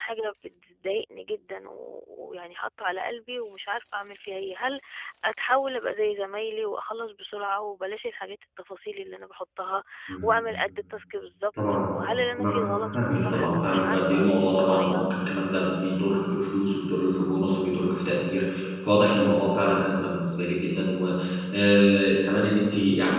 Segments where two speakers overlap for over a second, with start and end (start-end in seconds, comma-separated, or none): 12.4-15.3